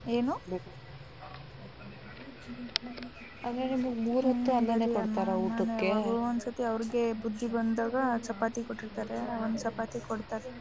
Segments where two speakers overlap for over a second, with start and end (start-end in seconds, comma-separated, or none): 4.2-5.9